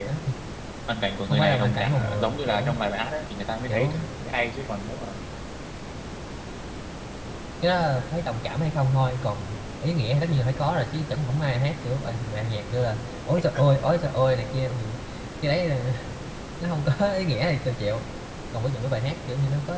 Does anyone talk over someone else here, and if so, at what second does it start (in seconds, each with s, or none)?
1.3 s